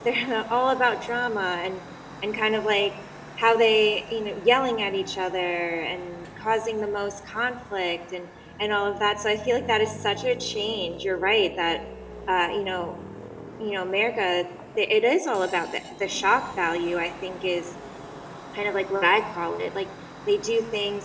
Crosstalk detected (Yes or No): No